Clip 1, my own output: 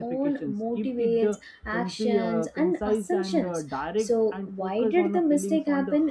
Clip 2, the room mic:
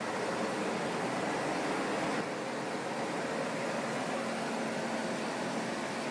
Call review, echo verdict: none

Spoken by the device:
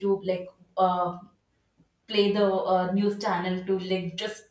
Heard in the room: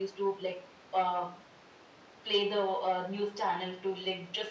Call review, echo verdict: present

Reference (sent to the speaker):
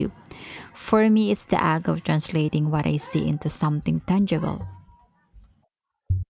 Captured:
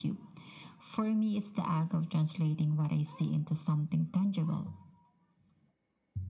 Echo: present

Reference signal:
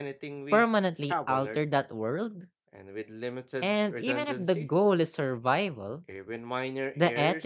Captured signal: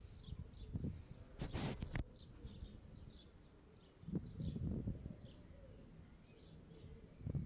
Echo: none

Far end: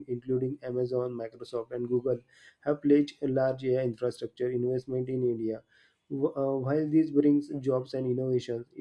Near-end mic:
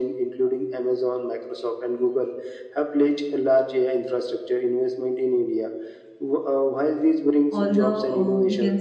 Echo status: present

